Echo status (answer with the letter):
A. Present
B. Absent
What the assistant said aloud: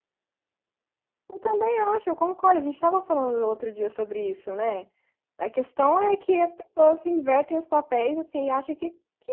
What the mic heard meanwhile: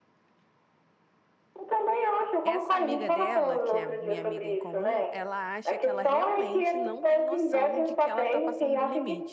A